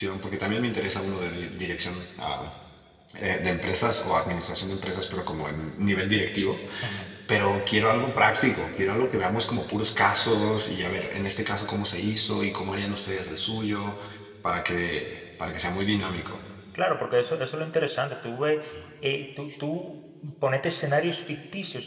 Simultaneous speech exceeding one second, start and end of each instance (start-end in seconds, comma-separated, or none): none